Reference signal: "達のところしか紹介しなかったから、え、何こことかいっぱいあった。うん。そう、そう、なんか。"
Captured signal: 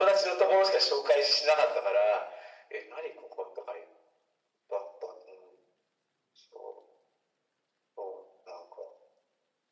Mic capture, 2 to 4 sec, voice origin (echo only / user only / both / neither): echo only